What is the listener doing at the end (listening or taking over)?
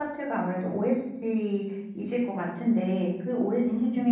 listening